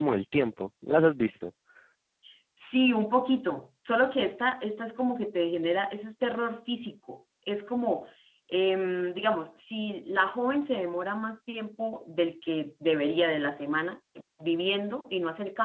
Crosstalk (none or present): none